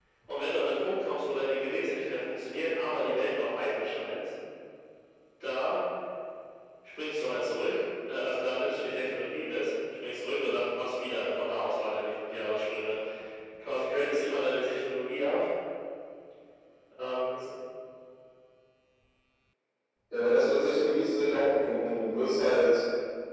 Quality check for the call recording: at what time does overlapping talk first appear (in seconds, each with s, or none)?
none